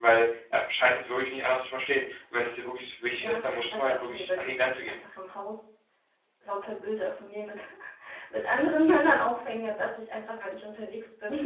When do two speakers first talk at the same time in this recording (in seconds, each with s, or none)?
3.2 s